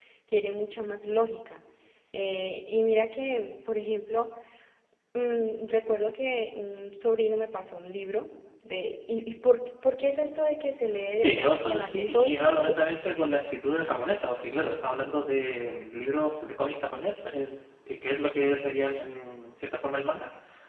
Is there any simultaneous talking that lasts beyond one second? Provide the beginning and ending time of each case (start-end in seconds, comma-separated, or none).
11.1-12.7